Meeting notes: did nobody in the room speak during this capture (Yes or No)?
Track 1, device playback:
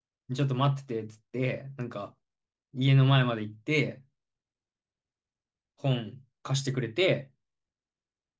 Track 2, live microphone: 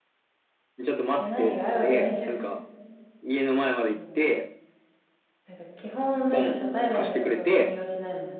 No